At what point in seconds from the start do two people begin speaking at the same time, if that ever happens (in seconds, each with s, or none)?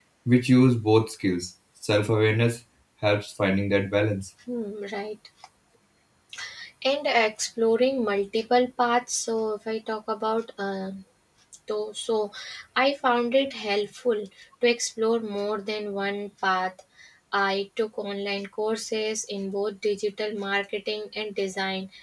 none